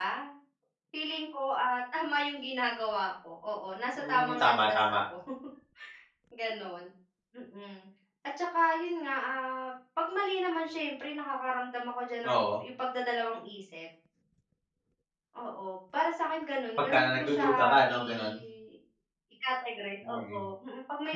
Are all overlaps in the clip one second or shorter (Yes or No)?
No